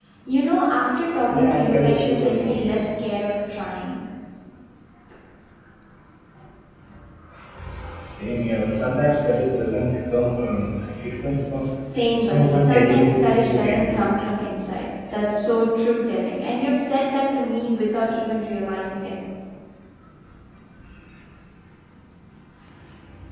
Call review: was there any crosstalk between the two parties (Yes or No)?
Yes